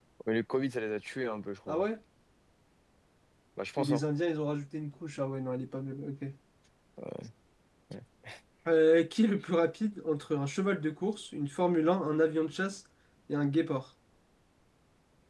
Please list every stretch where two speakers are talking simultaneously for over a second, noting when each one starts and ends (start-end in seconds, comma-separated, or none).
none